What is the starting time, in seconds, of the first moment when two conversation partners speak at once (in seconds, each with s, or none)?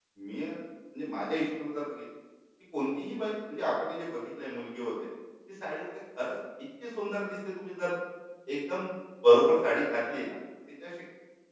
none